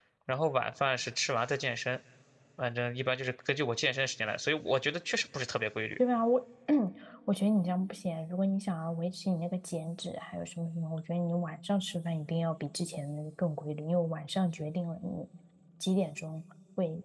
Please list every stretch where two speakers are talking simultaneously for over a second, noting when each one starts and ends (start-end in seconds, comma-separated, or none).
none